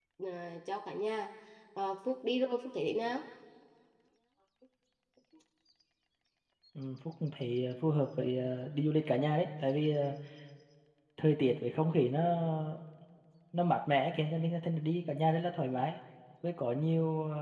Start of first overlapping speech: none

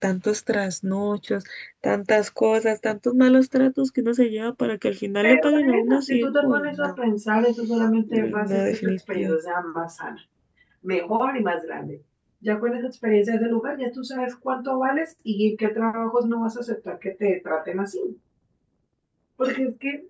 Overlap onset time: 5.2 s

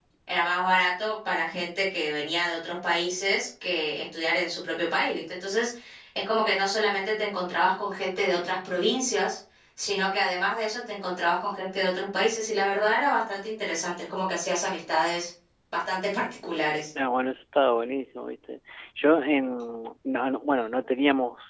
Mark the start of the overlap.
none

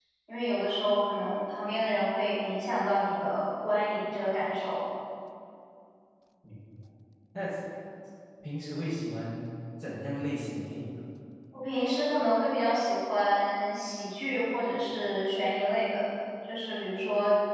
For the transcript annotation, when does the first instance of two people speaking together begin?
none

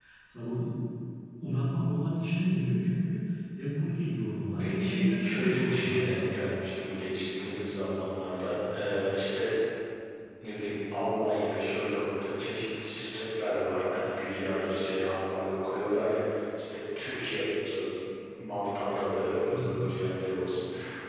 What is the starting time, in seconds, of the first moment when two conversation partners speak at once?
4.6 s

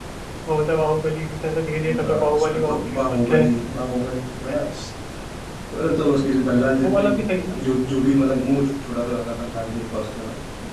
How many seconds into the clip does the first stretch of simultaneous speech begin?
2.0 s

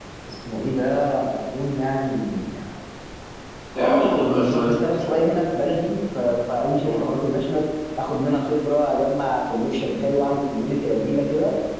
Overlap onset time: 3.8 s

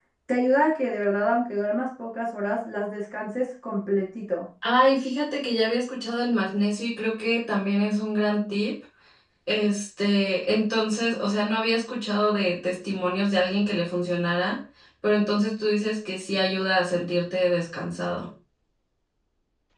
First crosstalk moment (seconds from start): none

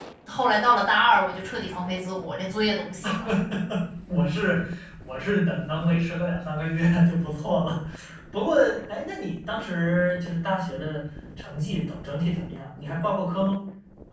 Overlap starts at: none

